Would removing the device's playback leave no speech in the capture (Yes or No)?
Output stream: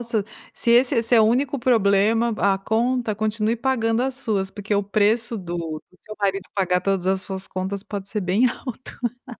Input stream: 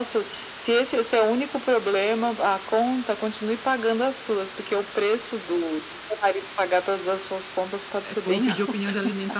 No